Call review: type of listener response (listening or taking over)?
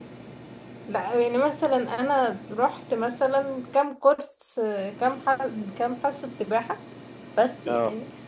listening